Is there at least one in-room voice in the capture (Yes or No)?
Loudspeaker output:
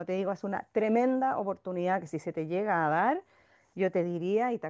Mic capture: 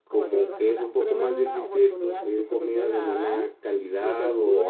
Yes